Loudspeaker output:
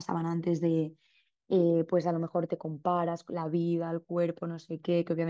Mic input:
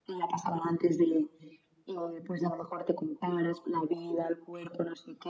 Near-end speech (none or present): none